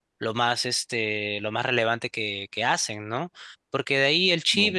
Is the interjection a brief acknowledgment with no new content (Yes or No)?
Yes